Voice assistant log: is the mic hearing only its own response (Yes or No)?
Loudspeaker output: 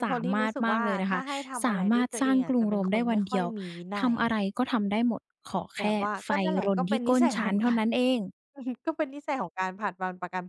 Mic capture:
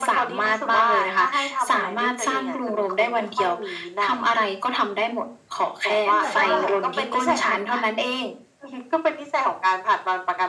No